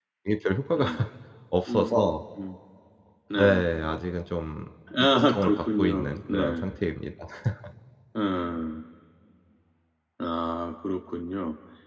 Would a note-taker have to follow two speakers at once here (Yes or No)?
Yes